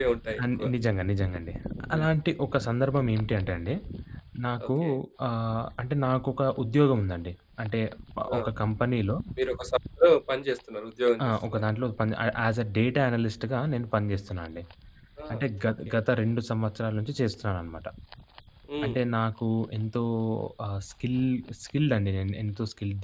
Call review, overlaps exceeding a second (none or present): none